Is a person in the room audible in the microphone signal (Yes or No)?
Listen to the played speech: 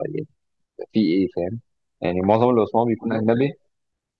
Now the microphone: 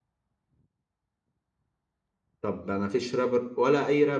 Yes